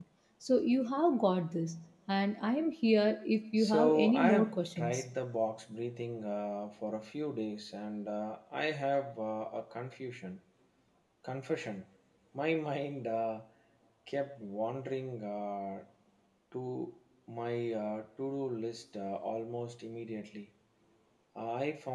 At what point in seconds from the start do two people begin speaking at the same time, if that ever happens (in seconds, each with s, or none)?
3.6 s